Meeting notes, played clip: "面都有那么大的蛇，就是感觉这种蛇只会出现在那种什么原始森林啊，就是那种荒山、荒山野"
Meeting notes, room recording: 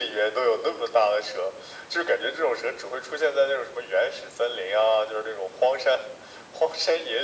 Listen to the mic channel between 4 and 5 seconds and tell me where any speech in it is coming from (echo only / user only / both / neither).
echo only